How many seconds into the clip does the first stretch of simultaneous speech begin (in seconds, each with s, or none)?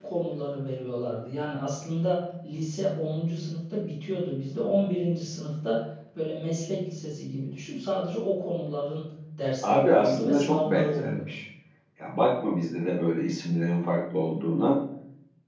9.6 s